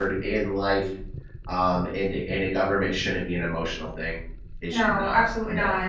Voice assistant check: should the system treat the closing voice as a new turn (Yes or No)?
Yes